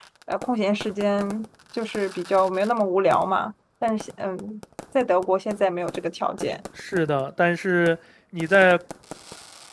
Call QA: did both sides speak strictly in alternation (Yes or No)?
Yes